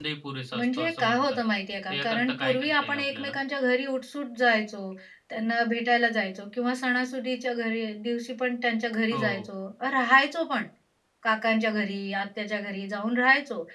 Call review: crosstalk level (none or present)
present